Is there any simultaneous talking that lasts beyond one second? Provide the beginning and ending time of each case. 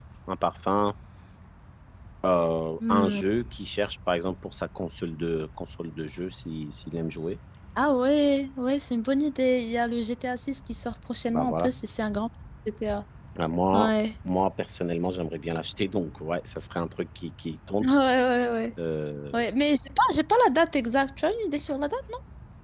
none

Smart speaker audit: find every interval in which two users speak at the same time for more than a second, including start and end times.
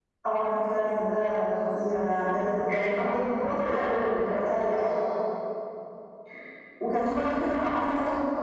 3.4-4.8

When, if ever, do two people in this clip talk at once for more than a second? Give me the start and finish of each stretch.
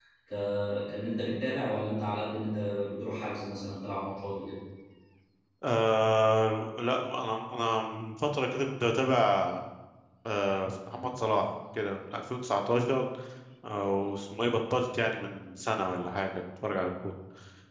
none

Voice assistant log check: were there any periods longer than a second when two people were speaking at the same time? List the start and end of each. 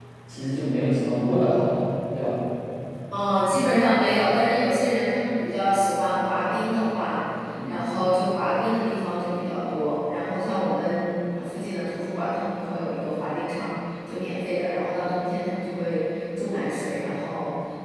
none

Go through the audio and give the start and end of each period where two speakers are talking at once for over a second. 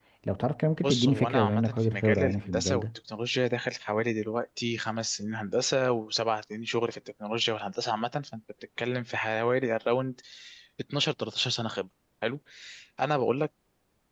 0.8-2.8

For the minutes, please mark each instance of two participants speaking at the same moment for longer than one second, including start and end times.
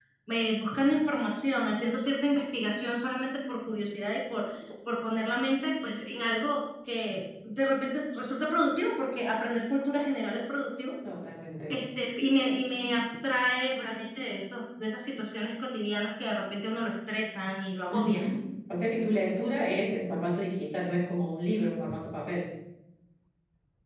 none

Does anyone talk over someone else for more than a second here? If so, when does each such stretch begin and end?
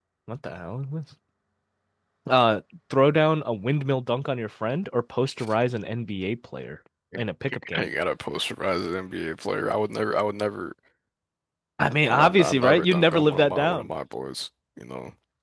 12.1-13.9

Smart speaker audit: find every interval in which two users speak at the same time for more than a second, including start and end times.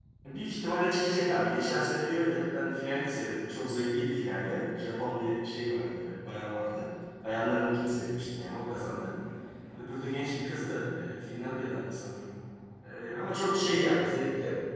none

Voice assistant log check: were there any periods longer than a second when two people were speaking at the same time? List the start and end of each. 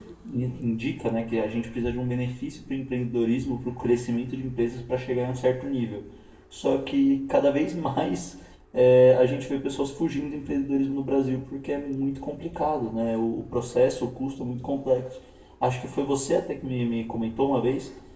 none

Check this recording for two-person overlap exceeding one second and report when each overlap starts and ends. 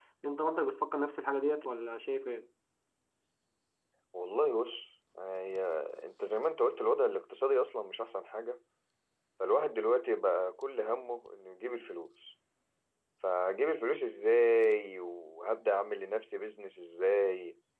none

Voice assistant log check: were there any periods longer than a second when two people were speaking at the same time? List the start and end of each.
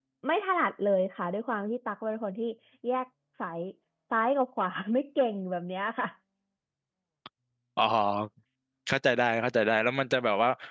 none

